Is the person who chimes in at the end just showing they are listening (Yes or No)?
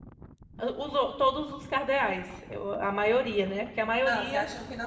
No